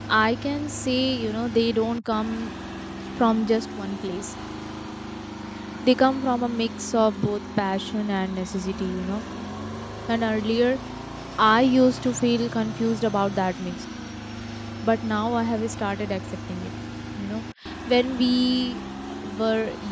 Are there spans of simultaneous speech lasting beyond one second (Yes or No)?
No